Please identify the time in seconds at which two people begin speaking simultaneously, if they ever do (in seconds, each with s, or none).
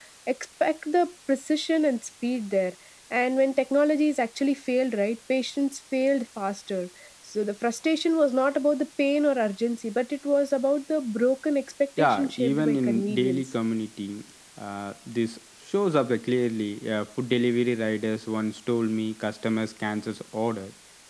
12.0 s